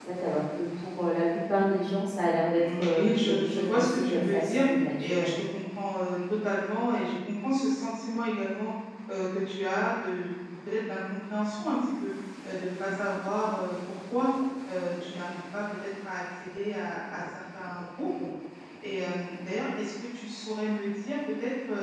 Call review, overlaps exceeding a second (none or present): present